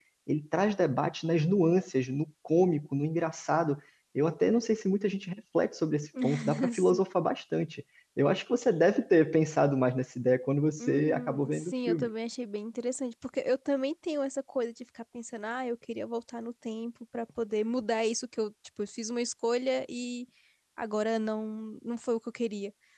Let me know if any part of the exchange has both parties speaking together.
Yes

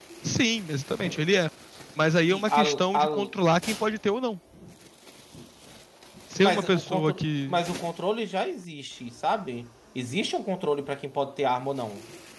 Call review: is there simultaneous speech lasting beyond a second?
Yes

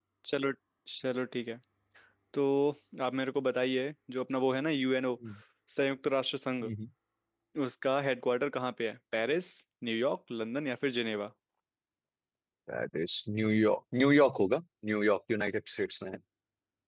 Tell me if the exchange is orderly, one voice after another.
Yes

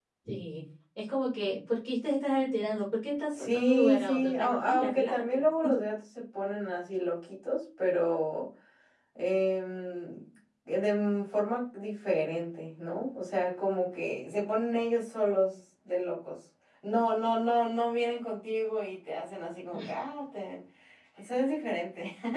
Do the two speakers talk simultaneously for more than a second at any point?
Yes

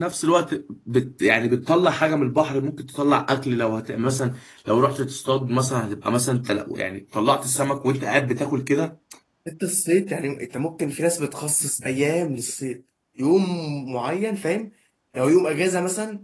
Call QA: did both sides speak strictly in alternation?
Yes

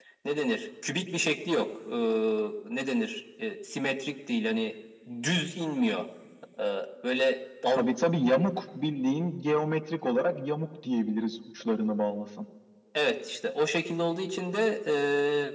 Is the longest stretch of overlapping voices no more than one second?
Yes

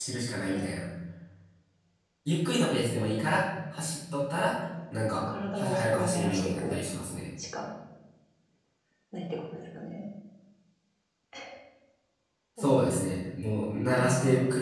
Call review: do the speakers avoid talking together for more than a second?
No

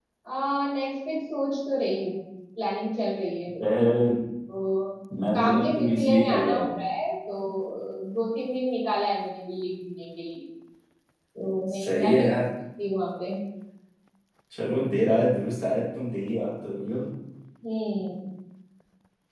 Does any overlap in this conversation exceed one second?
Yes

